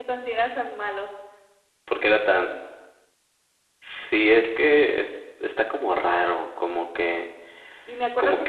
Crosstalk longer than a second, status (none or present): none